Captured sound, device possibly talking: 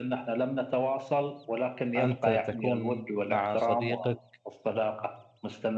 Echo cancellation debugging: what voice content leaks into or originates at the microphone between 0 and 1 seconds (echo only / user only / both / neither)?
echo only